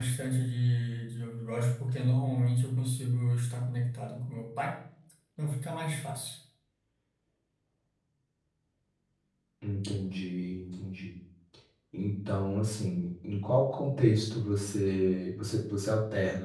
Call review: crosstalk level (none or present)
none